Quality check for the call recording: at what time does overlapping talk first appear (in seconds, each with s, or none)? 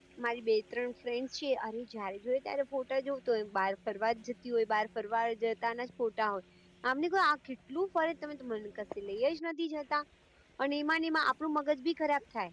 none